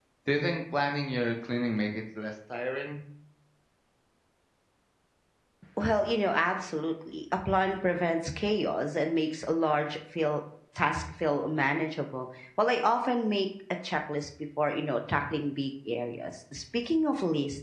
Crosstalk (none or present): none